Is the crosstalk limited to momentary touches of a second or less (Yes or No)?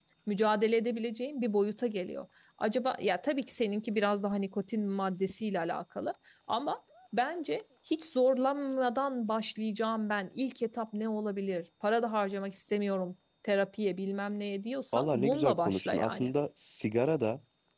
No